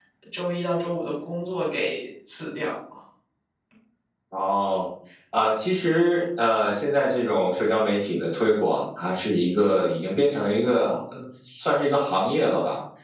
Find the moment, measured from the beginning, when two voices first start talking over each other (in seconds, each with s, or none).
none